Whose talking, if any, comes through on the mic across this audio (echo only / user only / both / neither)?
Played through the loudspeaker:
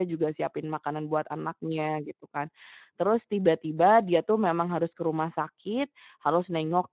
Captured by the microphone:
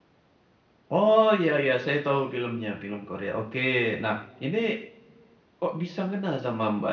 user only